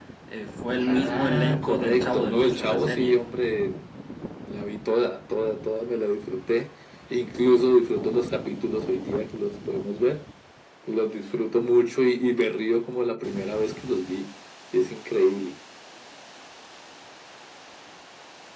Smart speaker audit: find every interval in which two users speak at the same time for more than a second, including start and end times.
0.8-3.2

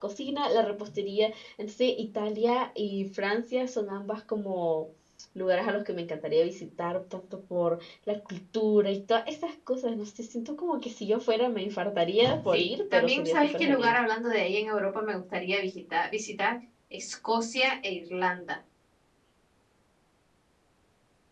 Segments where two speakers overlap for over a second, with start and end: 12.5-14.0

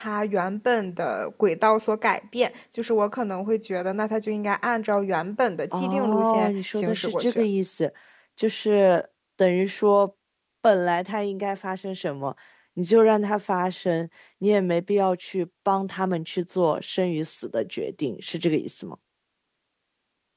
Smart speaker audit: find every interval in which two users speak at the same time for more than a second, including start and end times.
5.8-7.4

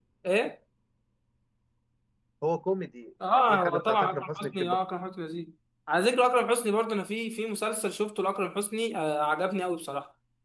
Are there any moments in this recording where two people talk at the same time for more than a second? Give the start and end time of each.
3.5-4.8

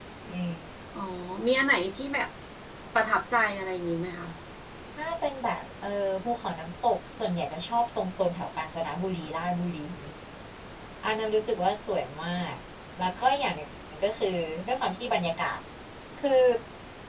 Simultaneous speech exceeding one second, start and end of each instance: none

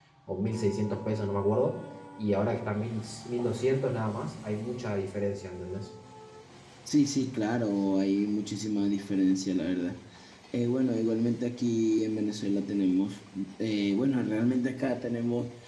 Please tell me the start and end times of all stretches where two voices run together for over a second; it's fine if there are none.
none

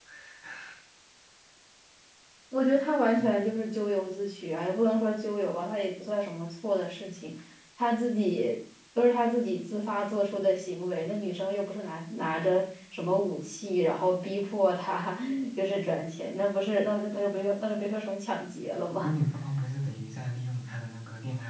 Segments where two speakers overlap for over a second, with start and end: none

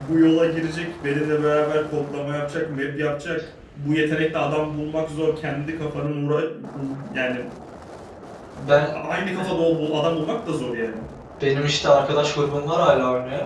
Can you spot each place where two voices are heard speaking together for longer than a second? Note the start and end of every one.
none

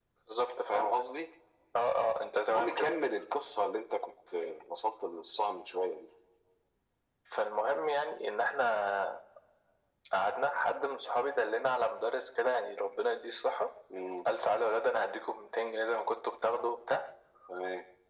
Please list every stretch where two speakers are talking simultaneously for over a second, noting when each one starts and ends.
none

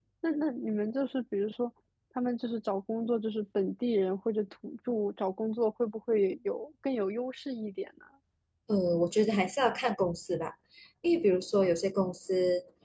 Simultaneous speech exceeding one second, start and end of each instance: none

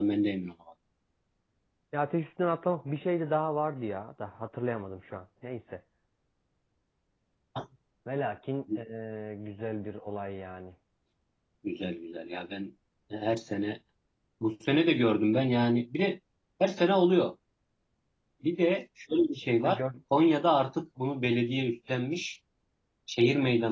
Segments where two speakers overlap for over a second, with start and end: none

